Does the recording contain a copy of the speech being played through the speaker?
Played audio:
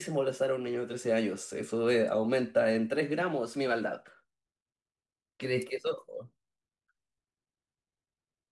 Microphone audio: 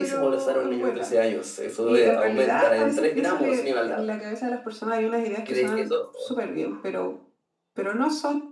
Yes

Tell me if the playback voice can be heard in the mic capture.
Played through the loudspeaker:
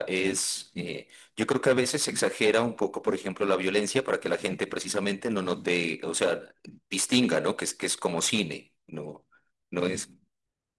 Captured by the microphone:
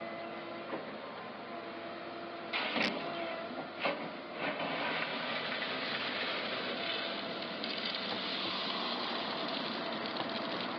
No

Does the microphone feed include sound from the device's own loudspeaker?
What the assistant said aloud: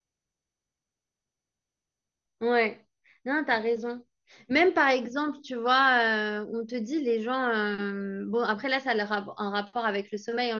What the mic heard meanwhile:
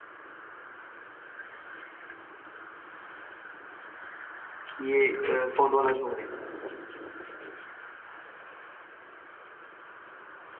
No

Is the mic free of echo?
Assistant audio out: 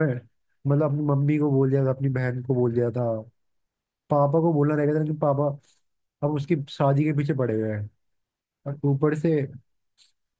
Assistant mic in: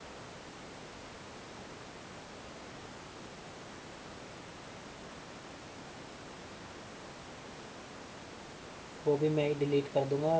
Yes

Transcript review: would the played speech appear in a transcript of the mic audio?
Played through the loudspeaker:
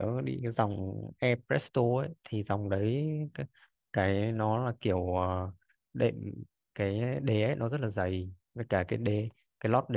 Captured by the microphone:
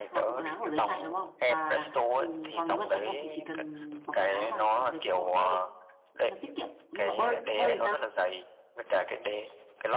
Yes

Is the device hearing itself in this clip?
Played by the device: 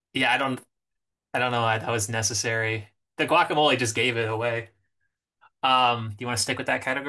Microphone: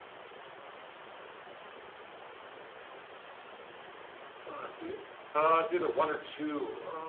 No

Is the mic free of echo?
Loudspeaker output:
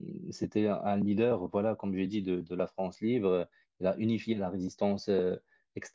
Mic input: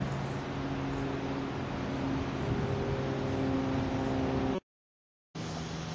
Yes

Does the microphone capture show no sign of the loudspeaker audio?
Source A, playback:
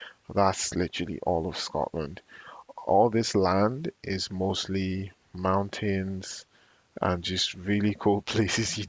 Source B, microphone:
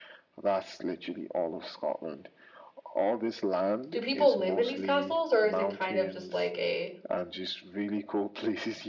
No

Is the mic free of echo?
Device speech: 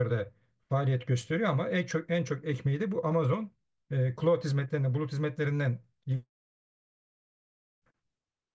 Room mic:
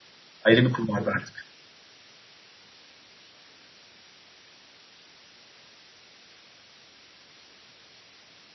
Yes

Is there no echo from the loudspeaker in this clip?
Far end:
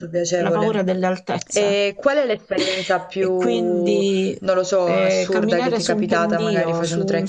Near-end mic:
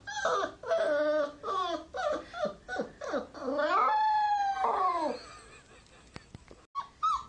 Yes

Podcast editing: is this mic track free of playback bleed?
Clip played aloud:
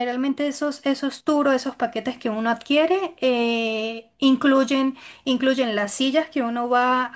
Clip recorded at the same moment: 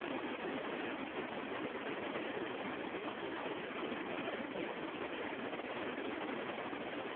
Yes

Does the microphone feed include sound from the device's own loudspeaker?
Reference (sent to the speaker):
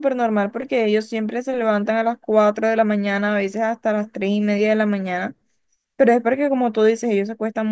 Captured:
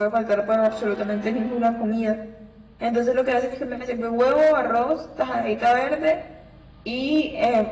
No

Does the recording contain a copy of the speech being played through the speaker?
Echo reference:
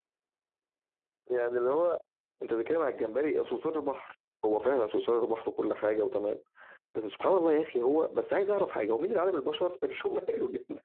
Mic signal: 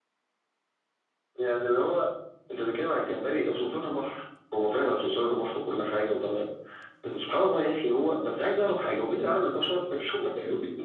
Yes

